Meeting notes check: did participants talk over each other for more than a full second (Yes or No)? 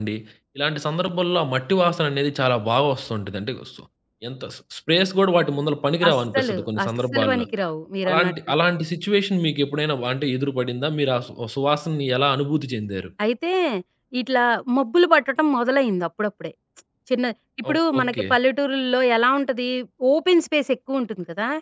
Yes